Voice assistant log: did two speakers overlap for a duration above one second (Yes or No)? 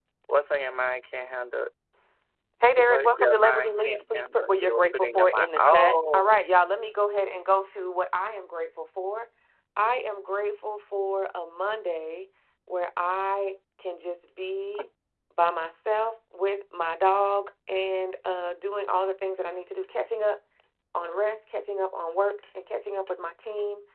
Yes